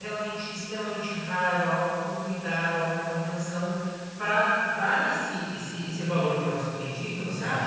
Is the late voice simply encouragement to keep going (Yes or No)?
No